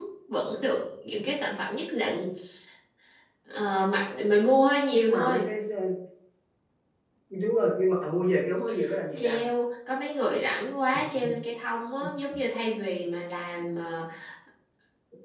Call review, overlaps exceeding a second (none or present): none